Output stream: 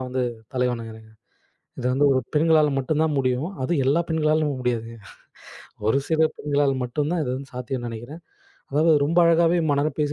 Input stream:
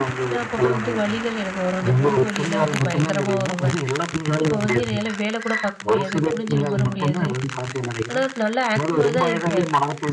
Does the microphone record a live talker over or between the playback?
Yes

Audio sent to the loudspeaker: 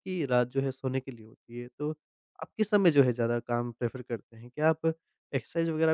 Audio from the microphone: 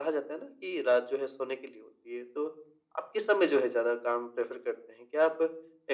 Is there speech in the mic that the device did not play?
No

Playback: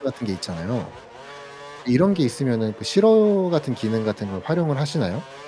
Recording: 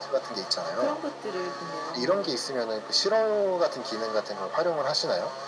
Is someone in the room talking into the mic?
Yes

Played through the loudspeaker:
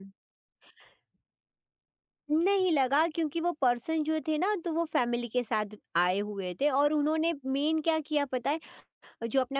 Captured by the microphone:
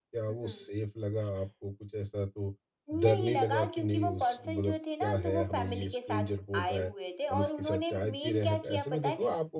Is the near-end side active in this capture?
Yes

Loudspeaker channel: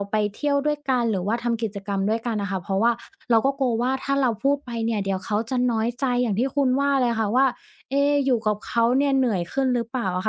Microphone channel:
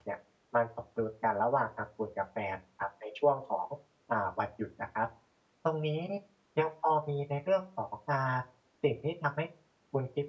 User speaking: Yes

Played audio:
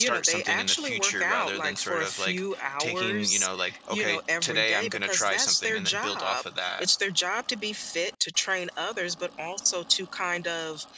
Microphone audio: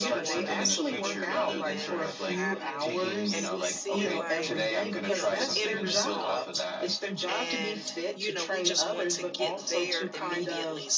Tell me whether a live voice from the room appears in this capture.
Yes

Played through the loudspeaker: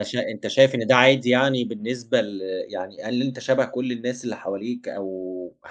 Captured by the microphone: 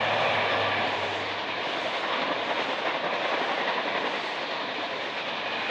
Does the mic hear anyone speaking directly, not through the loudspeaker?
No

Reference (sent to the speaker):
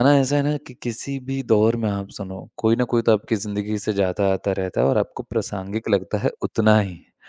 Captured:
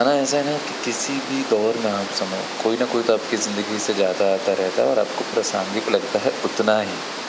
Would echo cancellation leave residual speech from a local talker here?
No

